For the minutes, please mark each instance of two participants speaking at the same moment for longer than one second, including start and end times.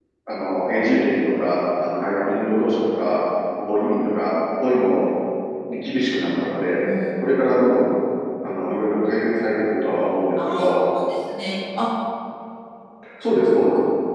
none

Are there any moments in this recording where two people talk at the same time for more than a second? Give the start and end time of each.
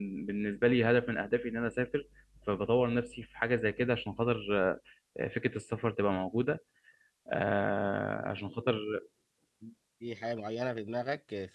none

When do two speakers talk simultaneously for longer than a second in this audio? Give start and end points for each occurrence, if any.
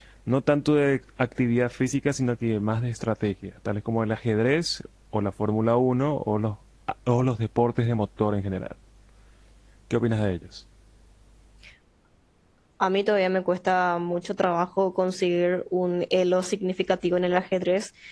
none

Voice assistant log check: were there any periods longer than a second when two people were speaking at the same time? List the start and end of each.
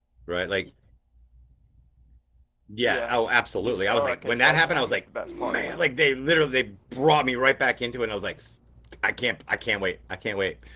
3.6-5.9

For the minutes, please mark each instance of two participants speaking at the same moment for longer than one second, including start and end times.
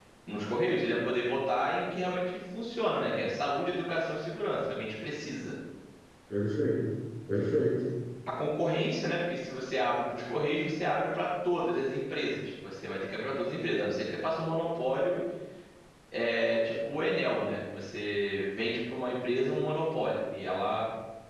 none

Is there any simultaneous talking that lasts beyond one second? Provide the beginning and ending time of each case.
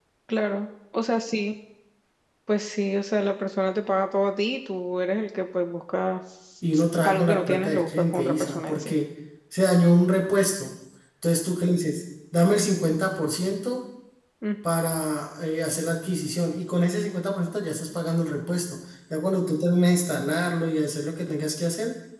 7.0-8.9

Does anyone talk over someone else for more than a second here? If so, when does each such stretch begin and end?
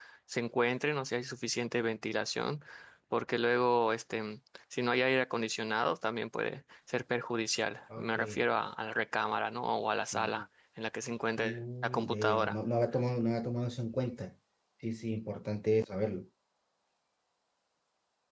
11.4-12.6

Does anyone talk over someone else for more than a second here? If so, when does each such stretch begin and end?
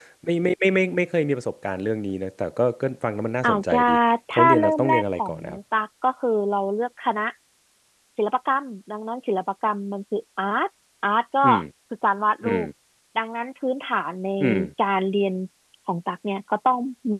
4.4-5.6

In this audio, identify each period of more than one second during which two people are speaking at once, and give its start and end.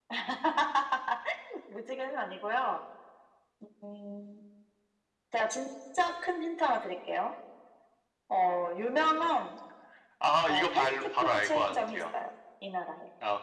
10.5-12.0

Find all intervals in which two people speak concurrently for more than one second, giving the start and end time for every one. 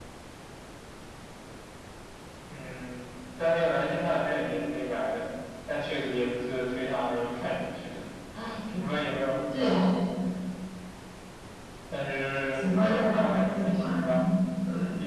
12.5-14.2

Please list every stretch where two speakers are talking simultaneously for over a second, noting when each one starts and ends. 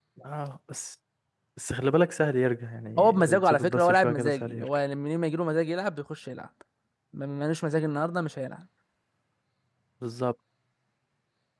3.0-4.7

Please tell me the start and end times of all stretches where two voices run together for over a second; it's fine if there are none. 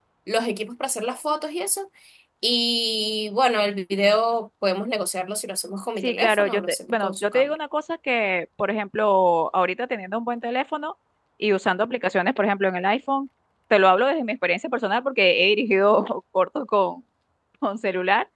6.0-7.5

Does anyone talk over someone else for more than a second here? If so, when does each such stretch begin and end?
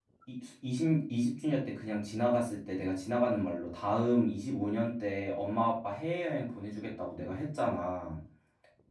none

